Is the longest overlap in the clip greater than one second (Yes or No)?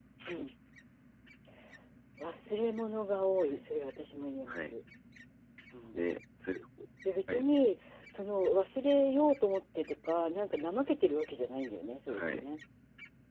No